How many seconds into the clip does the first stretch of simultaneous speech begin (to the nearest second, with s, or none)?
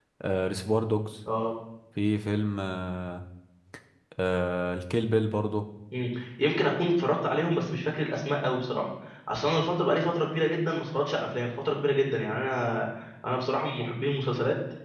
none